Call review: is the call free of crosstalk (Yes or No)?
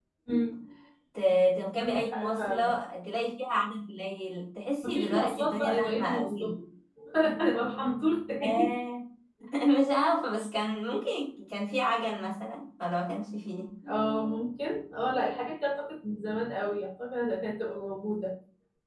No